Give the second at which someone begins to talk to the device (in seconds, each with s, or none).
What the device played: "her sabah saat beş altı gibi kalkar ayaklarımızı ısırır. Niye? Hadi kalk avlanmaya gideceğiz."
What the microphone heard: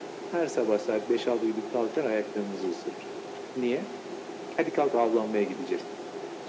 none